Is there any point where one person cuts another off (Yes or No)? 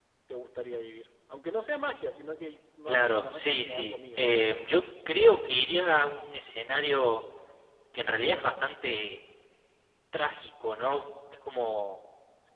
Yes